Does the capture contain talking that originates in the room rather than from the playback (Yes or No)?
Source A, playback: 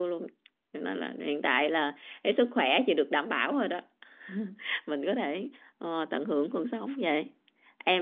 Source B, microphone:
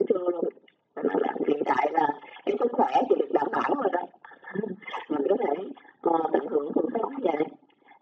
No